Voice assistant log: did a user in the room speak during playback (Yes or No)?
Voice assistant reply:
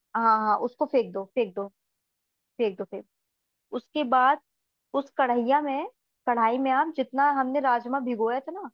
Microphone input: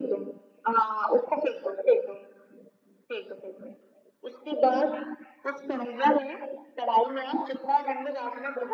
No